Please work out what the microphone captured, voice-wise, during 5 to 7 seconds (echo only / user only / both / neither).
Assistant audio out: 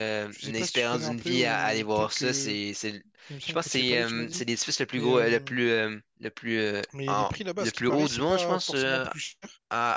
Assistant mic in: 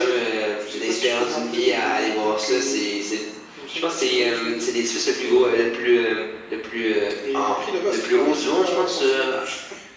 echo only